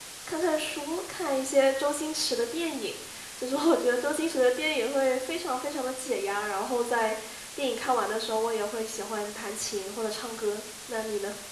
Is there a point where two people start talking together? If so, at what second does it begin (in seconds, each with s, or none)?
none